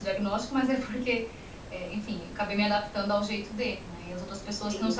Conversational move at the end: listening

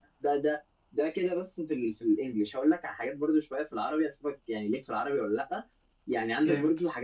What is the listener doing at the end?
listening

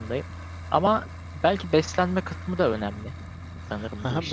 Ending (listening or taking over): taking over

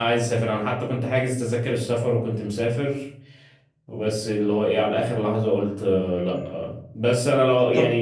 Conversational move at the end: listening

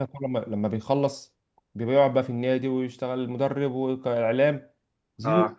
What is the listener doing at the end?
listening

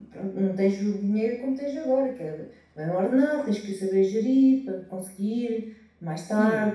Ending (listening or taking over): taking over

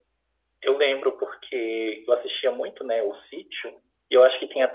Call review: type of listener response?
listening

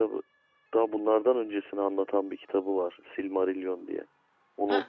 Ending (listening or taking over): taking over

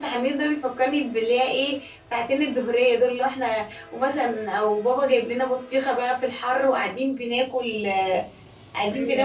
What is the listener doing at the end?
listening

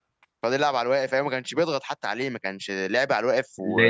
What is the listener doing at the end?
taking over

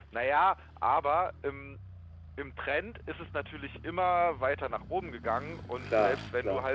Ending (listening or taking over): listening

